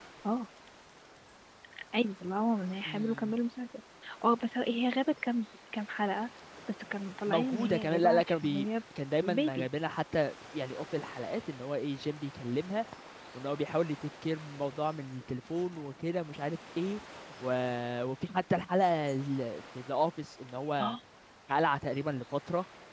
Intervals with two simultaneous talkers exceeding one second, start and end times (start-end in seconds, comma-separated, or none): 7.3-8.7